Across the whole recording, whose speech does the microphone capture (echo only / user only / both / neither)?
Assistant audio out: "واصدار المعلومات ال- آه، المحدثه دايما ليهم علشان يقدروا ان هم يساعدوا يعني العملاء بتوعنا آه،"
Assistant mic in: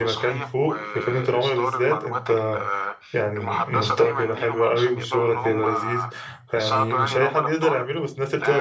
both